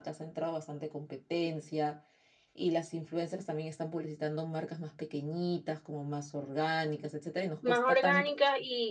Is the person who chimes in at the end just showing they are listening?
No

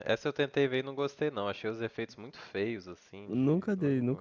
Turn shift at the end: Yes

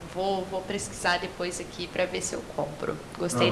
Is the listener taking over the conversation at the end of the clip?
Yes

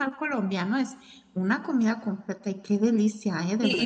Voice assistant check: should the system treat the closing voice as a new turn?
Yes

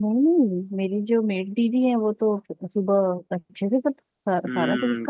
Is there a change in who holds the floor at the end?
Yes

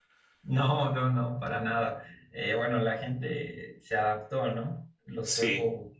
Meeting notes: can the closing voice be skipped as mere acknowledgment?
Yes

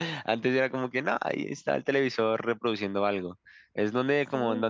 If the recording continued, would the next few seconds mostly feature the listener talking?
No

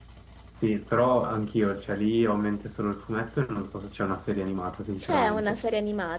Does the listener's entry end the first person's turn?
Yes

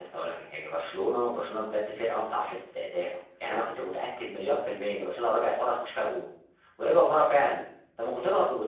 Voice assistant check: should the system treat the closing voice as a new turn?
No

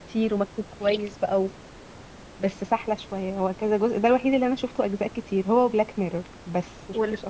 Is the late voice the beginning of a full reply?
Yes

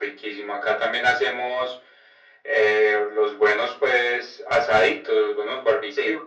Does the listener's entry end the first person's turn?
No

